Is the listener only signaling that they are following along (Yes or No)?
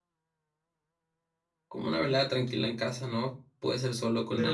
No